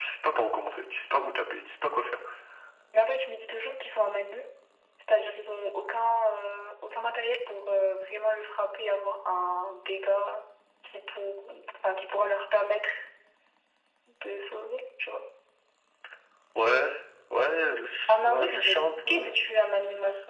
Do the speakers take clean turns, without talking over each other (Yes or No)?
No